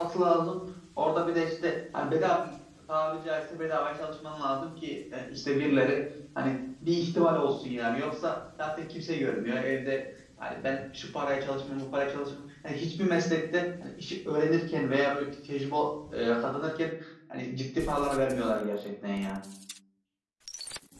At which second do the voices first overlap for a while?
none

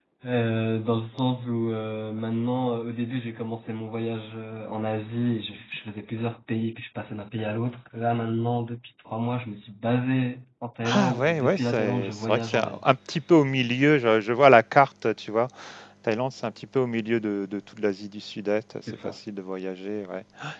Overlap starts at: 11 s

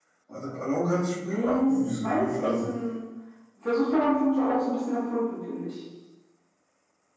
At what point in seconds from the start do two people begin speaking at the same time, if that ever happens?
1 s

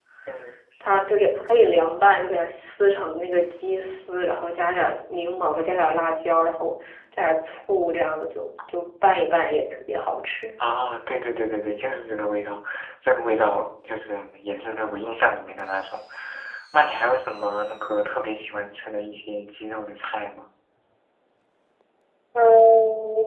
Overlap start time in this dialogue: none

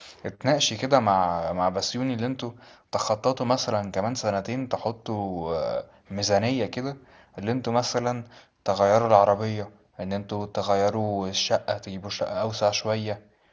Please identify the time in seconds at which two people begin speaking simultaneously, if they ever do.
none

